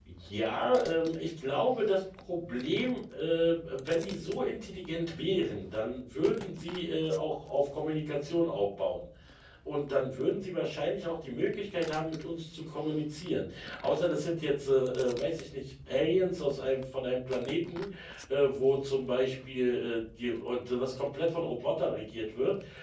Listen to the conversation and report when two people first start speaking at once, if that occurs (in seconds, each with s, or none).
none